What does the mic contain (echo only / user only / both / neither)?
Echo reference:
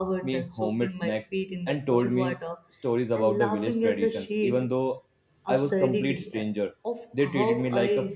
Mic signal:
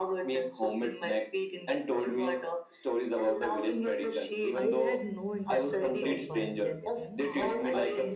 both